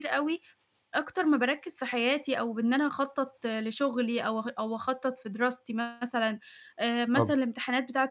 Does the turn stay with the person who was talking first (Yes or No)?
Yes